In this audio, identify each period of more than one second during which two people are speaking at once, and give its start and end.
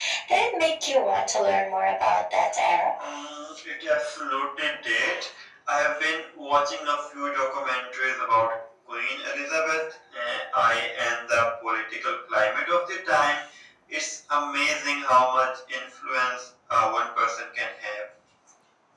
none

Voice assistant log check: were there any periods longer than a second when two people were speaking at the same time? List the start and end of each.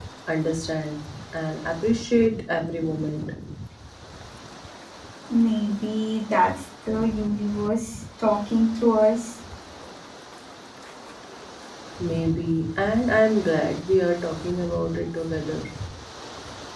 none

